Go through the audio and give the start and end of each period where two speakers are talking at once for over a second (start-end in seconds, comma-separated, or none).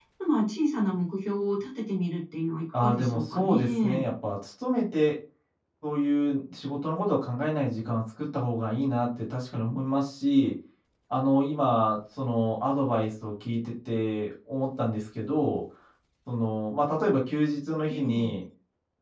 2.7-4.0